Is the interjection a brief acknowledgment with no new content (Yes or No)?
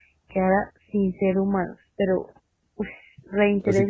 No